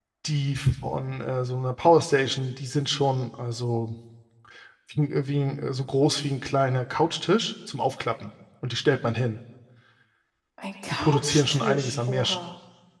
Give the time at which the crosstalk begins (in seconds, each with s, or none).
10.9 s